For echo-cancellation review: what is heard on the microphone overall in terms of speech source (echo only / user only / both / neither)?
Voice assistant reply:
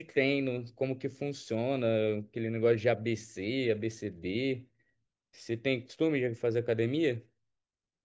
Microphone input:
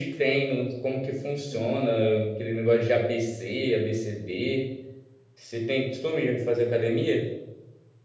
both